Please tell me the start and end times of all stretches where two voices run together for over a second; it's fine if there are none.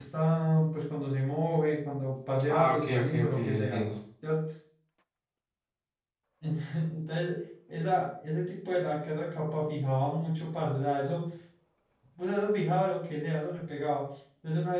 2.5-3.9

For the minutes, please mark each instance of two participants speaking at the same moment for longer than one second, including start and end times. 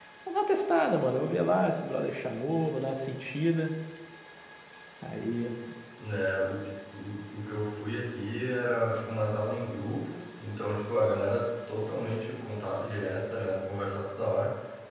none

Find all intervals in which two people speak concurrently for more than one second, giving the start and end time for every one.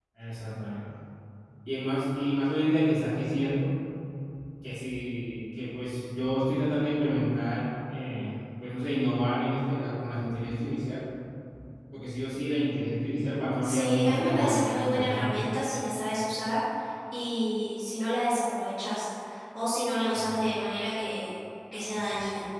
13.6-15.6

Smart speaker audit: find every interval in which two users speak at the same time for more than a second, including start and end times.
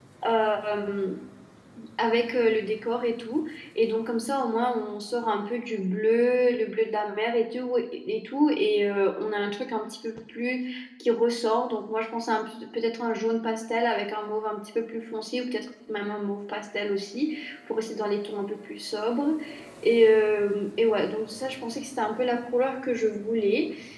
none

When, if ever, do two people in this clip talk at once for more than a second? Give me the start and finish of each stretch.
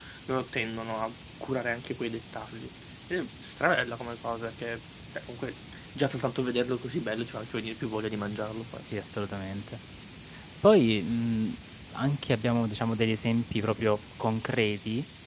none

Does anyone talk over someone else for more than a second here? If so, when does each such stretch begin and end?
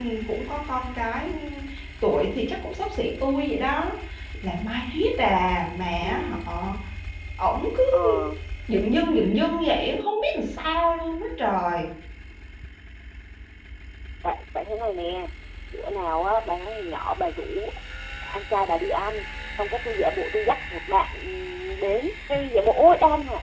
none

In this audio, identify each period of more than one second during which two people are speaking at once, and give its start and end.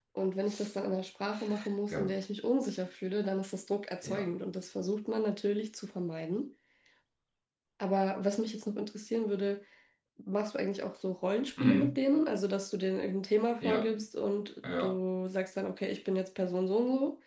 none

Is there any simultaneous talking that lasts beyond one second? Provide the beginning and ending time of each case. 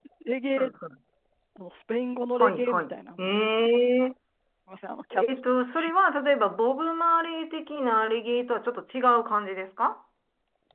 2.4-3.9

